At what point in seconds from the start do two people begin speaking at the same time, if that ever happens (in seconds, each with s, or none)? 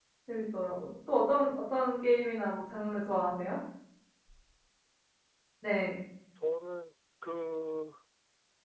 none